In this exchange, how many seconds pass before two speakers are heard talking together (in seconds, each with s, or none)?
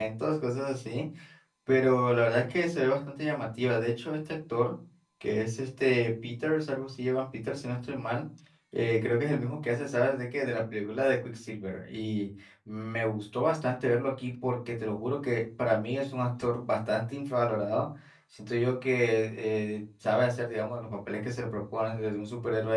none